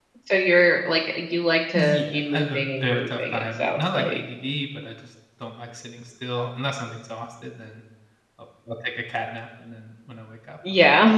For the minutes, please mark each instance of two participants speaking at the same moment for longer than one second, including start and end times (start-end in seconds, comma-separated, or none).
1.7-4.2